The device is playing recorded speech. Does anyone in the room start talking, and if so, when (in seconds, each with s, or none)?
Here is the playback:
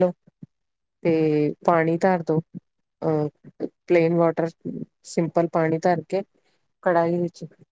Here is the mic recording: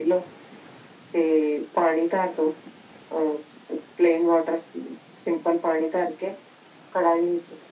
none